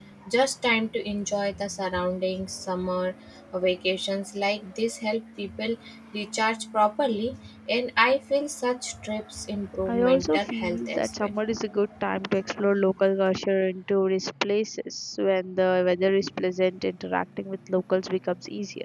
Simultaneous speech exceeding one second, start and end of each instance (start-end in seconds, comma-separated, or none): 9.9-11.3